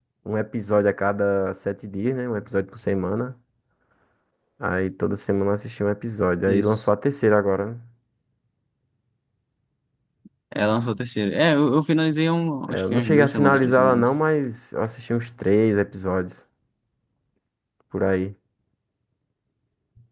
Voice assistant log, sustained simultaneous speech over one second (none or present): present